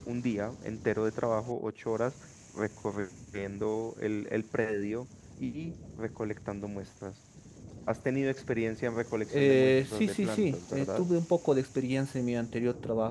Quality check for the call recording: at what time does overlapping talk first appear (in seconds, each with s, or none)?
9.3 s